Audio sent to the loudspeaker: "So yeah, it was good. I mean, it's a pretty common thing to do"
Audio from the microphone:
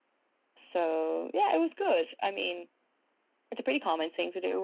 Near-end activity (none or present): none